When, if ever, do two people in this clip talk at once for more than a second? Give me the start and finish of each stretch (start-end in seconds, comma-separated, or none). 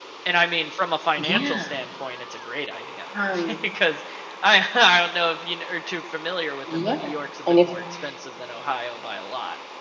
none